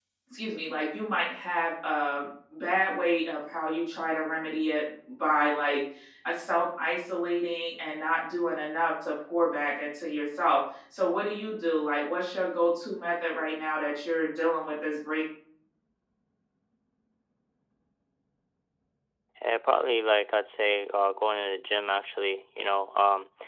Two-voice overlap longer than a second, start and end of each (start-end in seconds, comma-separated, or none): none